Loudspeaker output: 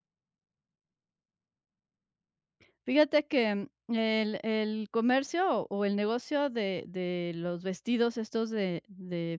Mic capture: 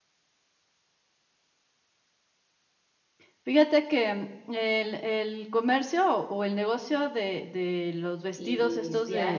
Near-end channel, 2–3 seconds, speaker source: neither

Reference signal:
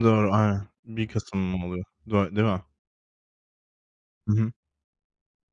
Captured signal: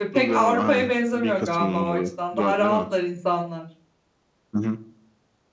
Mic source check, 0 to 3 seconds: both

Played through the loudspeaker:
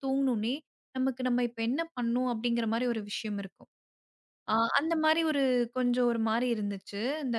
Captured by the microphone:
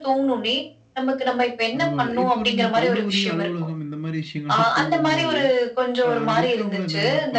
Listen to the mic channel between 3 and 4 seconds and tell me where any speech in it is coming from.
both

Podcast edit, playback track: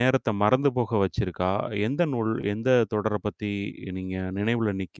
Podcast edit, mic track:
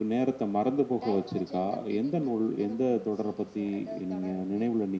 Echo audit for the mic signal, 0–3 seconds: both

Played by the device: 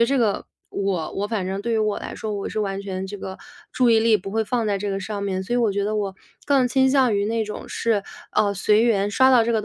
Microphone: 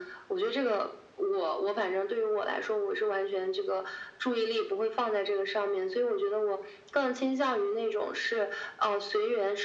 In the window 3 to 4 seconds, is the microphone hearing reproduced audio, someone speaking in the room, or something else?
echo only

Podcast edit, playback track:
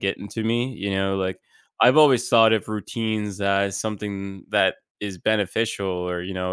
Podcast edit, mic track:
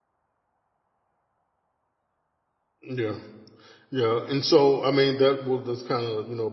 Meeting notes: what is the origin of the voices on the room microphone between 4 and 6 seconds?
user only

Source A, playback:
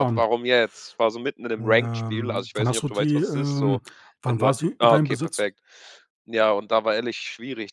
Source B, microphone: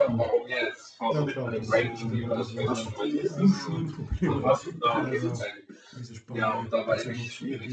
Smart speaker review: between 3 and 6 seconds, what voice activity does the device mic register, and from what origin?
both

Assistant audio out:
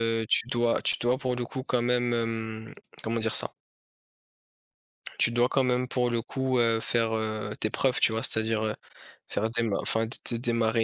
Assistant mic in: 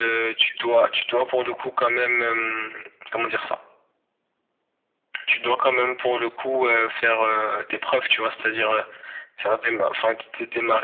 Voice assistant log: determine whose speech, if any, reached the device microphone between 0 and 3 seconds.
echo only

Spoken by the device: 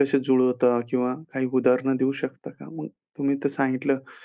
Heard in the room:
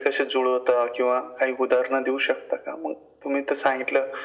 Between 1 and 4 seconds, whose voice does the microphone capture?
echo only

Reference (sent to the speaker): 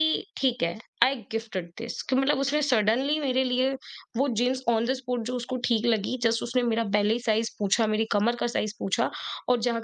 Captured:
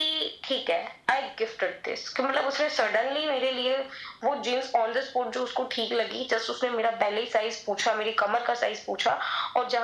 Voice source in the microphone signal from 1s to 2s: echo only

